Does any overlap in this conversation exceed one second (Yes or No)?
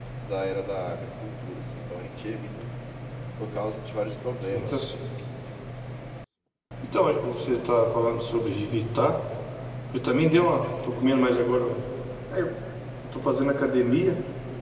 No